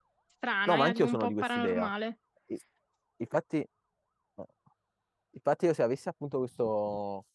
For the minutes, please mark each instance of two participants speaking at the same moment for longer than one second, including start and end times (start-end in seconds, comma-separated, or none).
0.7-1.9